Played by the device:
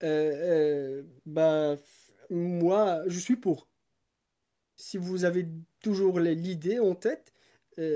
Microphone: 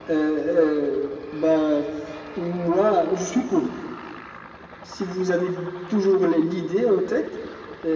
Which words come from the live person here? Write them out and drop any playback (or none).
none